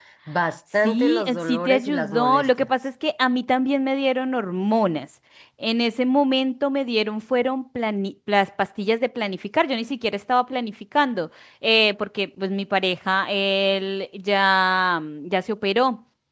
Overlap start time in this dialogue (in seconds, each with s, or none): 0.8 s